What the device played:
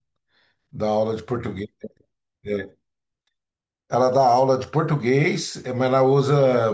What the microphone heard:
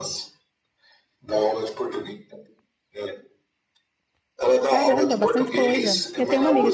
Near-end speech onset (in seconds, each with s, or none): 4.7 s